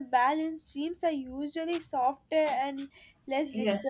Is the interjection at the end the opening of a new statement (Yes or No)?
Yes